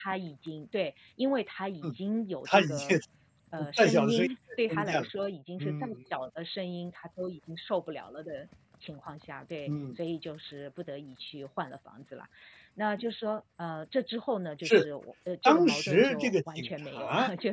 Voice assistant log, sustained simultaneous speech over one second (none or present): present